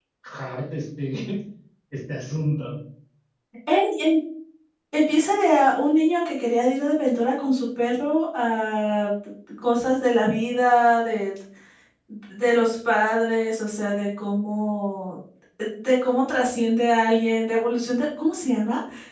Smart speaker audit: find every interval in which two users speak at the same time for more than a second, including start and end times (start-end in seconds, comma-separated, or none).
none